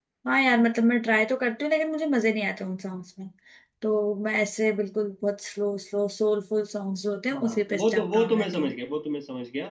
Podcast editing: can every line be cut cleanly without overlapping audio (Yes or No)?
No